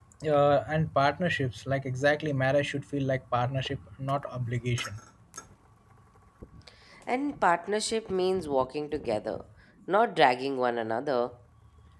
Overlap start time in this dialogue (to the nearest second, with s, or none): none